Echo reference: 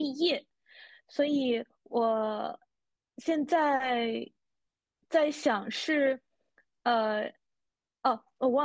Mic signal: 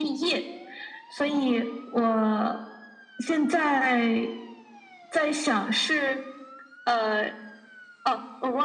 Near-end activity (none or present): none